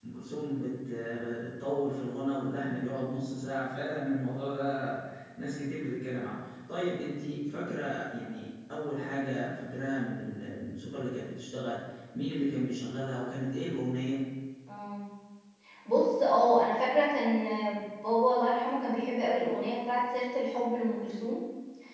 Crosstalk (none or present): none